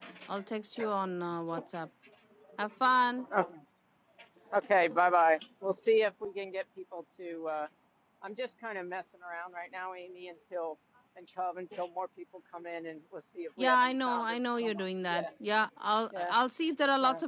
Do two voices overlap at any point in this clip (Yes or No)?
Yes